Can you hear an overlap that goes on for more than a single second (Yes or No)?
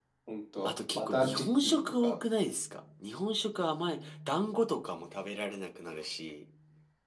Yes